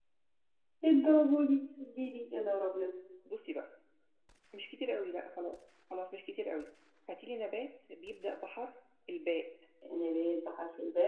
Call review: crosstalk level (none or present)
none